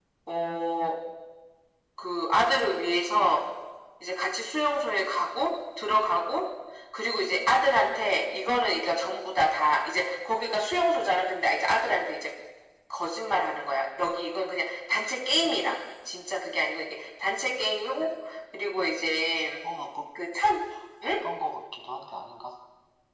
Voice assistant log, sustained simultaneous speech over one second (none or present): none